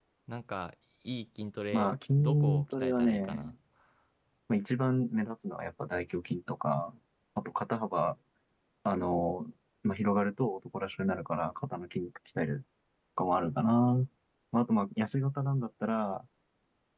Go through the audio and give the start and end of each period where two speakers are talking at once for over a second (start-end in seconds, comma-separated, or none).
1.7-3.5